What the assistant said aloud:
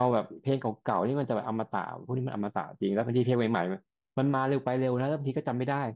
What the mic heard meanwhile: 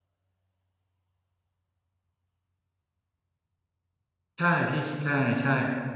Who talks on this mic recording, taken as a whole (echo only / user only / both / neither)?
user only